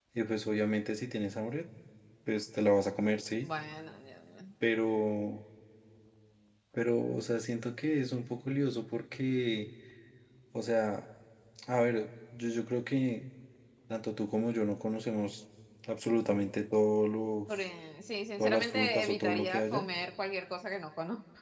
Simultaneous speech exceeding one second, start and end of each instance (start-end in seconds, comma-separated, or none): 18.4-19.8